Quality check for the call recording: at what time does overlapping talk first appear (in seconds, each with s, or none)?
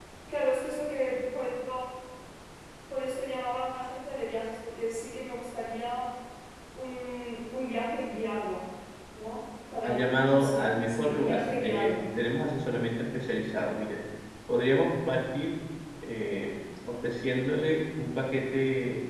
9.8 s